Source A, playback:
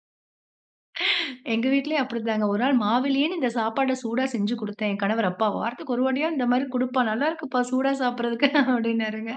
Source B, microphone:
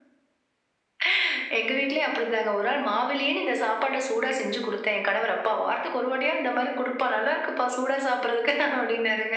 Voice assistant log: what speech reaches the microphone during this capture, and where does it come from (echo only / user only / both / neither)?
echo only